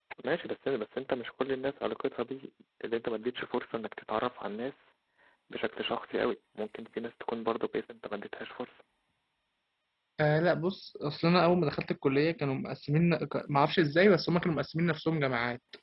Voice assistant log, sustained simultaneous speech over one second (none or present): none